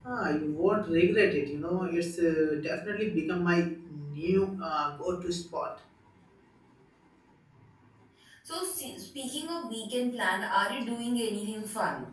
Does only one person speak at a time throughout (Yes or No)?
Yes